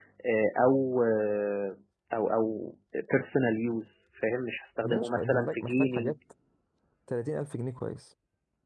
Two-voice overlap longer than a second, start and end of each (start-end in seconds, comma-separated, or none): 4.8-6.1